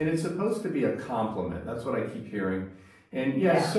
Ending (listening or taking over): listening